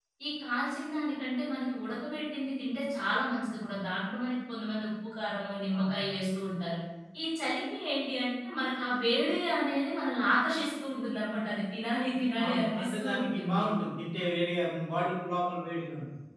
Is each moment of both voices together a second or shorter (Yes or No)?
No